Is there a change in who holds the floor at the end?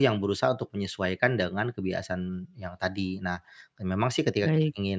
No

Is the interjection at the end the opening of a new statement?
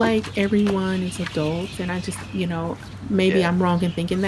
No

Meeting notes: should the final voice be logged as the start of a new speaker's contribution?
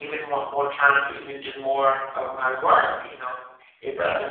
No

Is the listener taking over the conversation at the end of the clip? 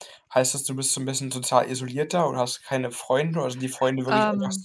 No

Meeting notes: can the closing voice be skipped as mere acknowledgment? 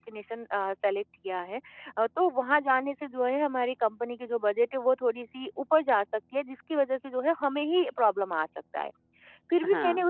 Yes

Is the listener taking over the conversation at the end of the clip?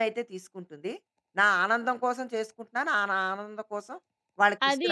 Yes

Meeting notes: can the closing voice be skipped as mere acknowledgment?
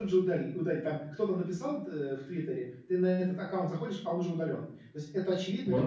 Yes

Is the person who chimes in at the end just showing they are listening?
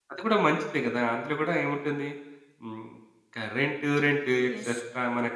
Yes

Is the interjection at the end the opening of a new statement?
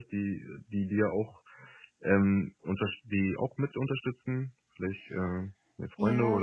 Yes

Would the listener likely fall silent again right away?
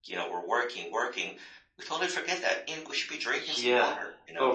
No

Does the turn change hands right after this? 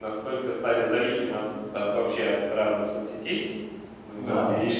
Yes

